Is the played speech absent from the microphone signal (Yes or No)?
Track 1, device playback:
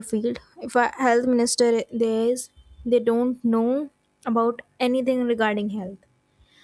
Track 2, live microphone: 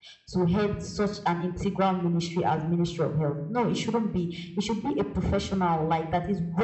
Yes